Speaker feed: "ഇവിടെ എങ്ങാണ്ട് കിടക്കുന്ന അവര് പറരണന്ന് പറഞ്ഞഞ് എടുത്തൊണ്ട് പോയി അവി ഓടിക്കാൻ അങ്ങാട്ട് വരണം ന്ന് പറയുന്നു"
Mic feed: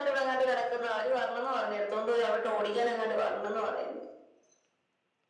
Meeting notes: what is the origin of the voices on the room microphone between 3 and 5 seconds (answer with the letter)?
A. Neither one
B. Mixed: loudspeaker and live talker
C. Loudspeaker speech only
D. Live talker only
C